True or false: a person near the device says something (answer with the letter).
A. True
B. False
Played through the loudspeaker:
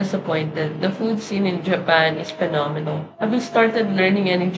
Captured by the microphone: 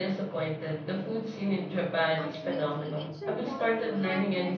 A